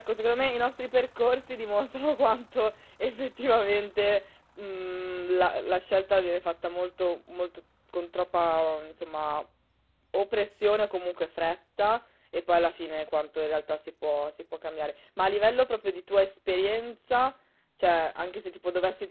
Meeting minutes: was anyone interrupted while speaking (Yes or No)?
No